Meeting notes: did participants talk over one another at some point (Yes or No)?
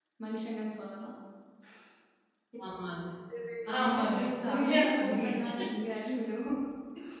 Yes